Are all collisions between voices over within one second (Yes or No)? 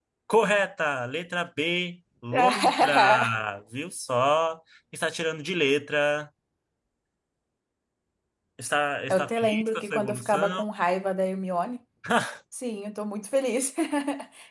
No